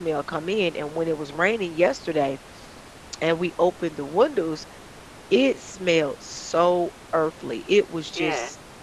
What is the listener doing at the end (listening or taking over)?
listening